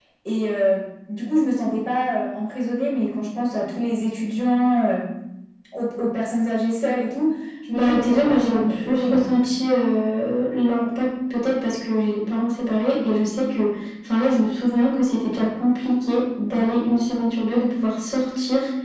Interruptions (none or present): present